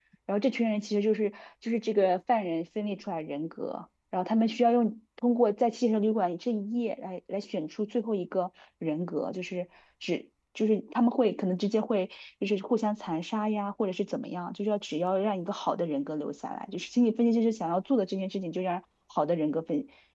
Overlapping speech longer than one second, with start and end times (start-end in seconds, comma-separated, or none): none